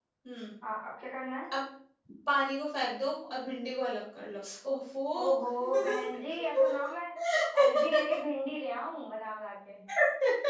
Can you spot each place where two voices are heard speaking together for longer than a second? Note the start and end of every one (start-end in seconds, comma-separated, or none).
none